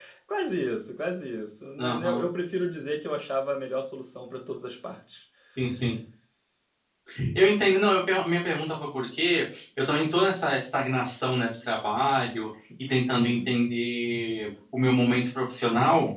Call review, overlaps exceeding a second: none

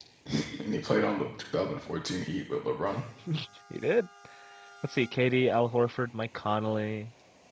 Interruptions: none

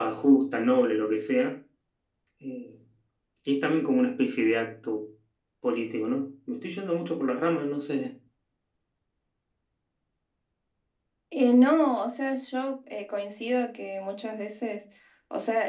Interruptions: none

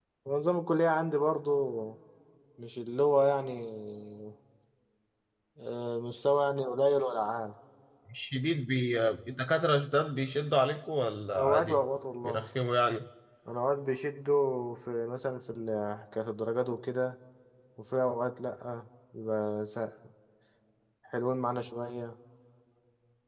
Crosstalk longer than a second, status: none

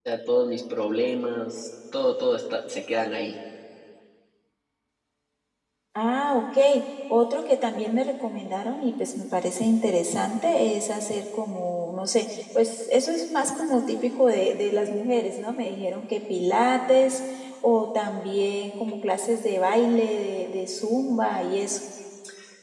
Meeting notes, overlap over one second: none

